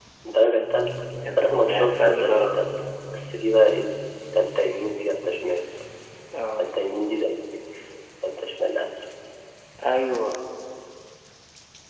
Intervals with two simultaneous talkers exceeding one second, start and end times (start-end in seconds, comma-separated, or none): 1.4-2.6